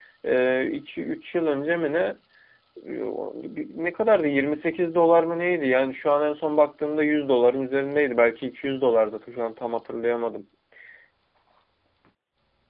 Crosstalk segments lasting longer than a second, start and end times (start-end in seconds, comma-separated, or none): none